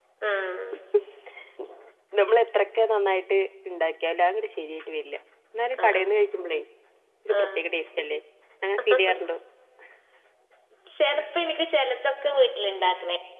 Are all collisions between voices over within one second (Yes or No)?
Yes